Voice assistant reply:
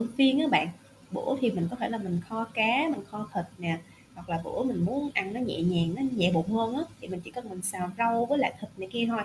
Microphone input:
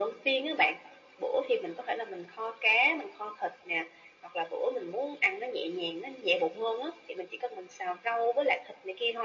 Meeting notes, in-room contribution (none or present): none